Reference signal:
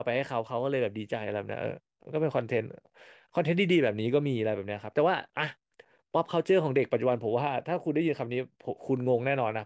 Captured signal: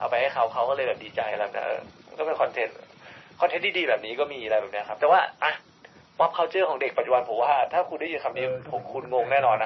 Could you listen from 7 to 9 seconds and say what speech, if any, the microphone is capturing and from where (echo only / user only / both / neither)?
both